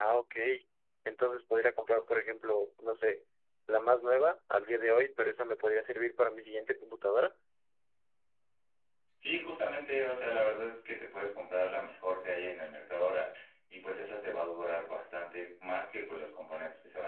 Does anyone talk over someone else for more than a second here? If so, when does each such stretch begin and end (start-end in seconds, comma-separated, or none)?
none